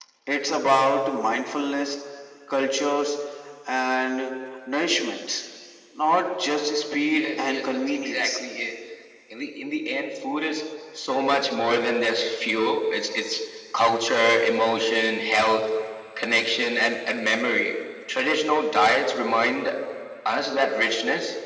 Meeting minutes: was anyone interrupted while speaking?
Yes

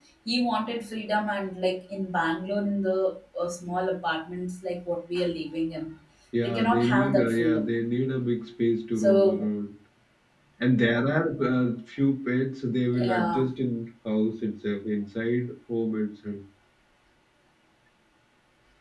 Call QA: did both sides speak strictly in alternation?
No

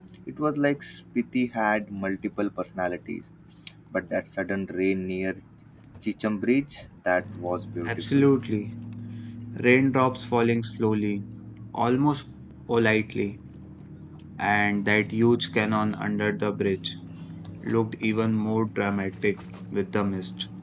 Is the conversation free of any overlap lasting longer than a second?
Yes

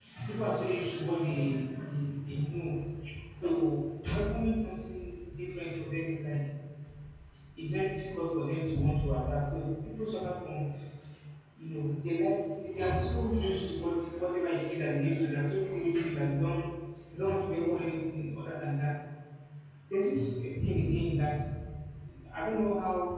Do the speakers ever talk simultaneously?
No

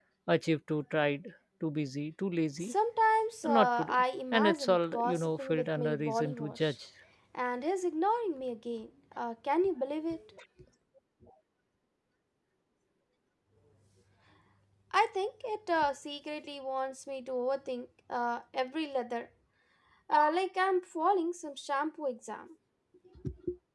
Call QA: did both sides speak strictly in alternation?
No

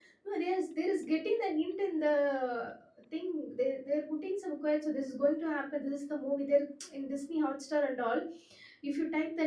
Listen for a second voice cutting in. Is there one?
No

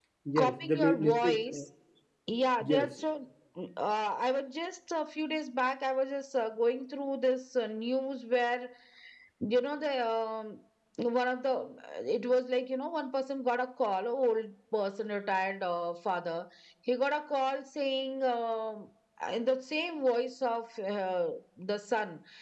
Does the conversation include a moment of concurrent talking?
Yes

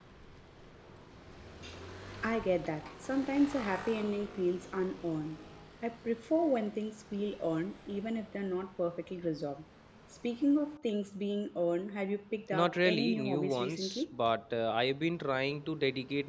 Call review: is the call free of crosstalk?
No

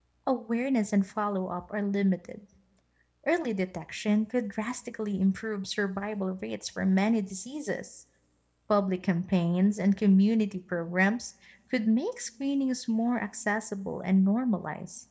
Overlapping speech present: No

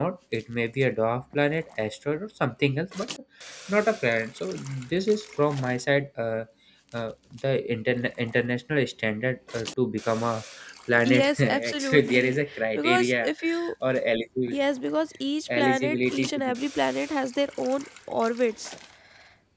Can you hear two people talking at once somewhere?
Yes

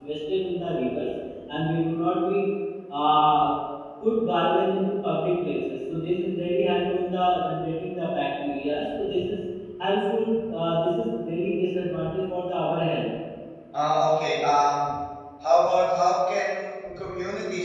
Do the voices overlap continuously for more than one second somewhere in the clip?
No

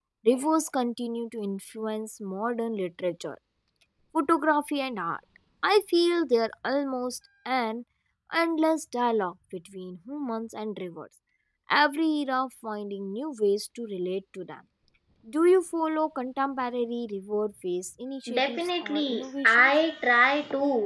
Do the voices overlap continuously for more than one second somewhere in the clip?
Yes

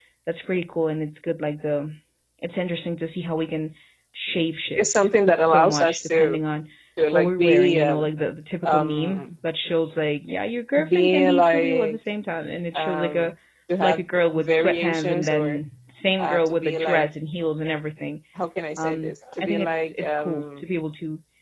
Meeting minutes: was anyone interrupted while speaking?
Yes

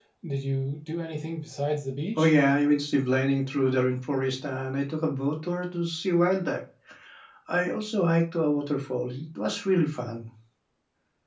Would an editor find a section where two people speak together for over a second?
No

